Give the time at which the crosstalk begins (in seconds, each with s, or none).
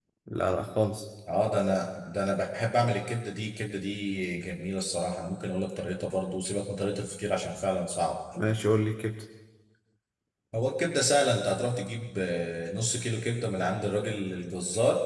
none